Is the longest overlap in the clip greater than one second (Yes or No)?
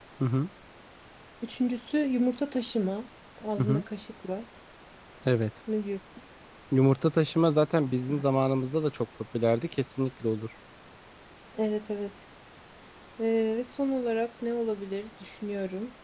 No